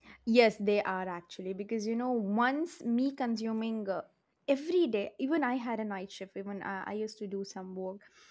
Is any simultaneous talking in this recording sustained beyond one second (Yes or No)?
No